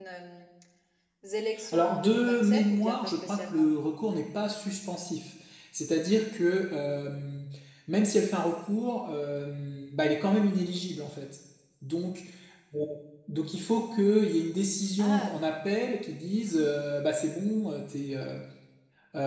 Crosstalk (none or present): present